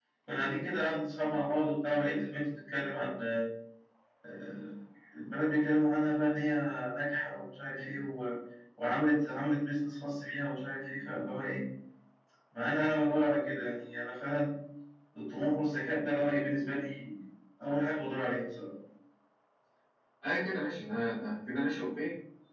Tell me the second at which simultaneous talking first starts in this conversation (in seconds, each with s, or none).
none